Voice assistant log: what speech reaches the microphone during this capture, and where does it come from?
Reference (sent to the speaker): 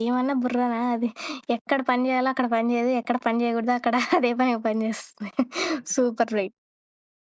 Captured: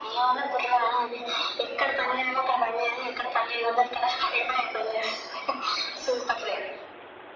echo only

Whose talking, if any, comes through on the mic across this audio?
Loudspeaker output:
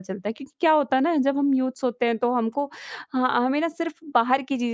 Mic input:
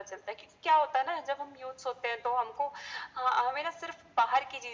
echo only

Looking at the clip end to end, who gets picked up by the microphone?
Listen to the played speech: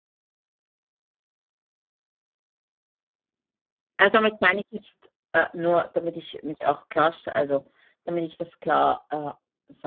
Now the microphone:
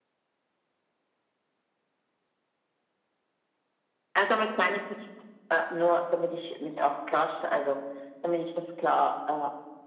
echo only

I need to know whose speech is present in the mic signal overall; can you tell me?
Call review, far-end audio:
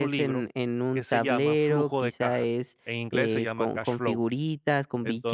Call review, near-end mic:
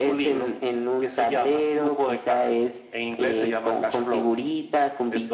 echo only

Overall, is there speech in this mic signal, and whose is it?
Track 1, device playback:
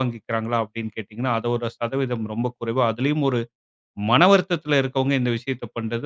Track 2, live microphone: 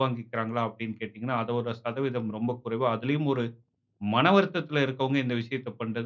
echo only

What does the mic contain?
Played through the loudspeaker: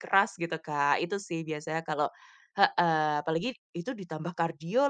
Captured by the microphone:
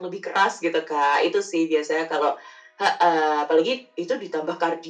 echo only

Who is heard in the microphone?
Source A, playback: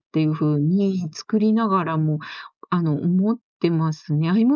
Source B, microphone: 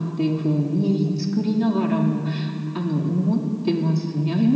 echo only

